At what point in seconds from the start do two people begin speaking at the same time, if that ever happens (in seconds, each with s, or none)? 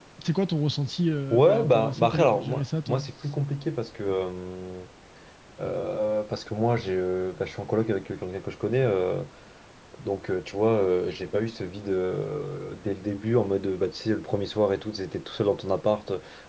1.3 s